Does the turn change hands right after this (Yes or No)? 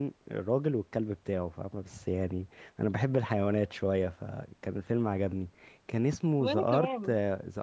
No